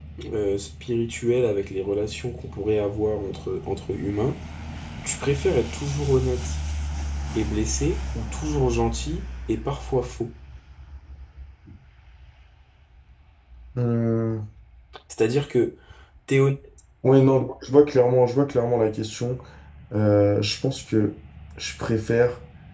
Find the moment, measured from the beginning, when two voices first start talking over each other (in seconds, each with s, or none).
none